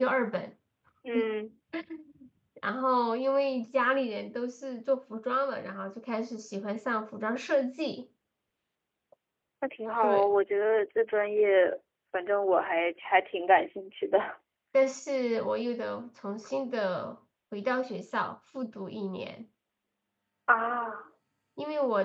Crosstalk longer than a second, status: none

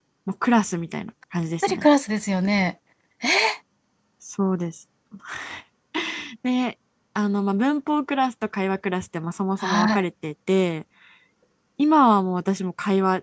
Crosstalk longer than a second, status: none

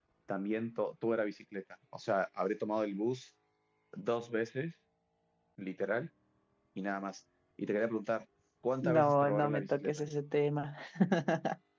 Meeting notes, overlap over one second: present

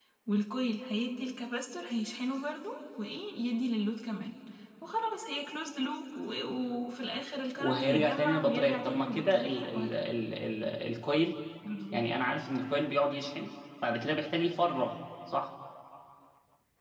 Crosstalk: present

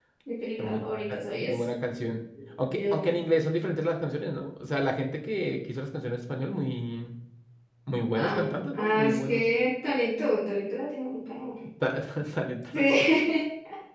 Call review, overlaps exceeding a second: present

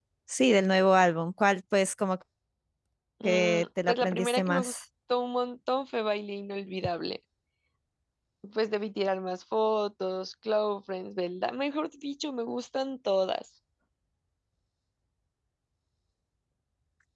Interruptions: present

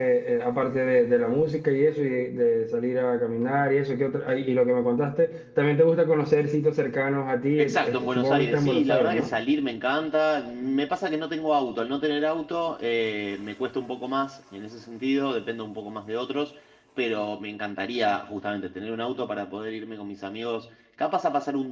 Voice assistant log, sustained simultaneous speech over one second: present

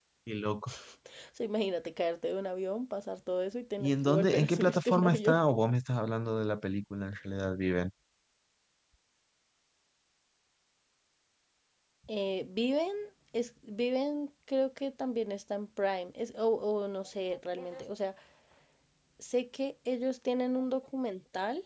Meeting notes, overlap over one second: present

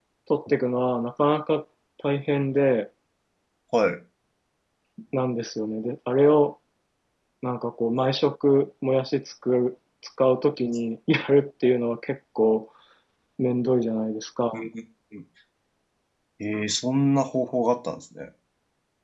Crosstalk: none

